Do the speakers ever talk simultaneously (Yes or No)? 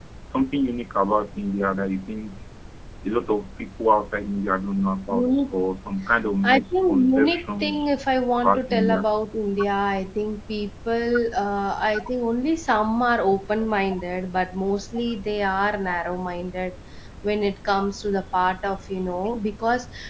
Yes